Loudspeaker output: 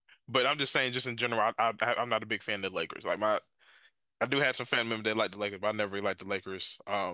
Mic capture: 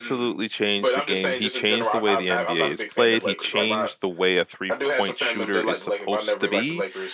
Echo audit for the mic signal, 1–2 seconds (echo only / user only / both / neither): both